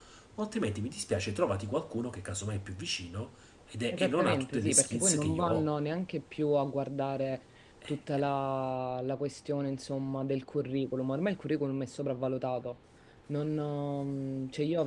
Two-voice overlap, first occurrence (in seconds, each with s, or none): 3.9 s